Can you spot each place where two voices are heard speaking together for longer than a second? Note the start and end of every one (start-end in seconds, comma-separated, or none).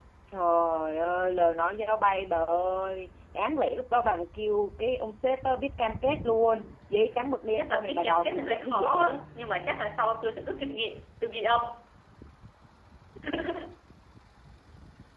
7.5-9.1